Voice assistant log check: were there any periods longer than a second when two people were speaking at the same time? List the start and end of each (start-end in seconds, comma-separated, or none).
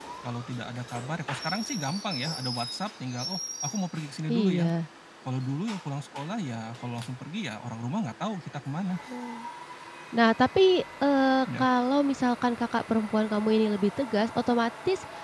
none